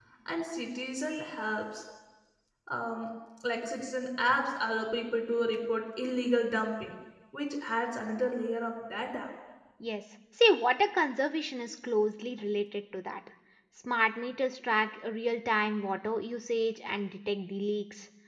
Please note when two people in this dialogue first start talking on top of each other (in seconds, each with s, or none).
none